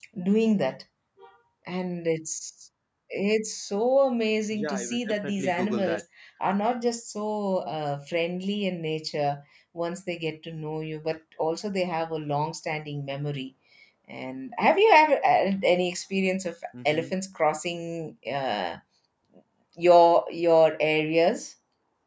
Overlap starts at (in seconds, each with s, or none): 4.5 s